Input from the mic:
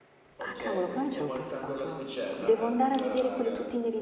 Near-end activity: present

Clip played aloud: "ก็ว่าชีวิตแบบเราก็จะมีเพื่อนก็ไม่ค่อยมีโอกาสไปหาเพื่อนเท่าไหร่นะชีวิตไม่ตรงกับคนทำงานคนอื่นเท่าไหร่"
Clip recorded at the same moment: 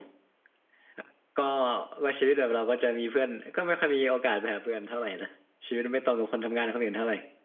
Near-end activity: none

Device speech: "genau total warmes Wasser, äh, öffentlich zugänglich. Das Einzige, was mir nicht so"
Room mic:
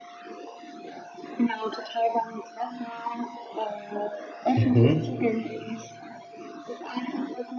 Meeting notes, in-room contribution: present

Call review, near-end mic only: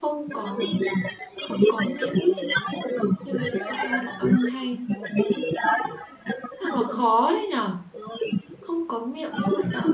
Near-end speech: present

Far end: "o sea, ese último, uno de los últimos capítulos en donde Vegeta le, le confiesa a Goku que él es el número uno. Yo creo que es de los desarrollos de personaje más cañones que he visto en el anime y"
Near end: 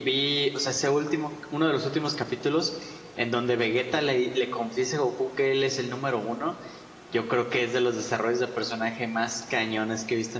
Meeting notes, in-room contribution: none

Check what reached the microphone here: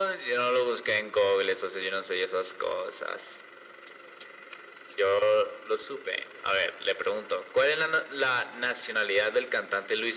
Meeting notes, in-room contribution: none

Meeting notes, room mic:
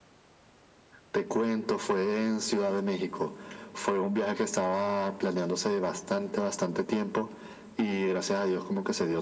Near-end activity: none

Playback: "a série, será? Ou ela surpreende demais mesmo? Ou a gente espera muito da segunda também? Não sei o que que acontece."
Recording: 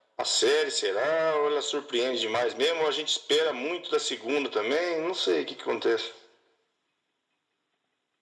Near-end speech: none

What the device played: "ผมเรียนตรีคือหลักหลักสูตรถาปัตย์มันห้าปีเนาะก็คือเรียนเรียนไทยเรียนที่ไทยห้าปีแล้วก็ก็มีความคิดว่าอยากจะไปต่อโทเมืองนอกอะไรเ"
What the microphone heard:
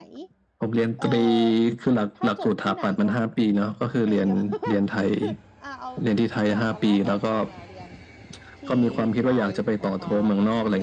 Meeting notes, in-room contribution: present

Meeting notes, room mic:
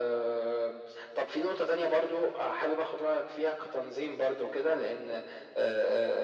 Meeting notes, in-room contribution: none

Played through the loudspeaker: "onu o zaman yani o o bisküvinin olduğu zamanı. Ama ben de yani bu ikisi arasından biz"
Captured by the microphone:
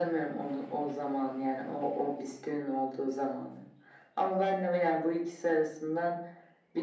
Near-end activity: none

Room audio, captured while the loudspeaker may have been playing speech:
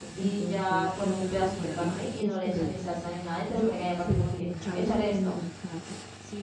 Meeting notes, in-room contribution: present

